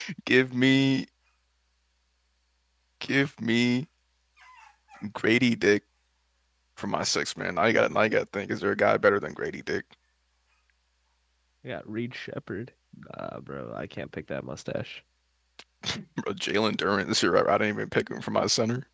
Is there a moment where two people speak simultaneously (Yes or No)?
No